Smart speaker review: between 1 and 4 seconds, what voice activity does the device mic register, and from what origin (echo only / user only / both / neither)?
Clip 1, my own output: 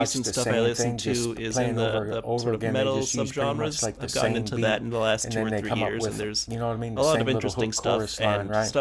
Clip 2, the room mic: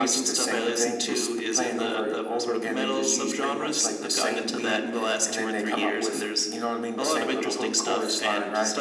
echo only